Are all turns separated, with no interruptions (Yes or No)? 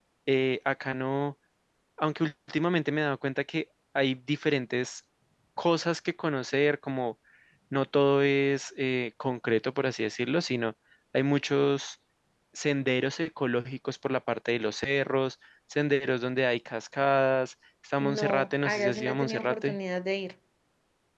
No